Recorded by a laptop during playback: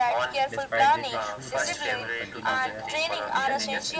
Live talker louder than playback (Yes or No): No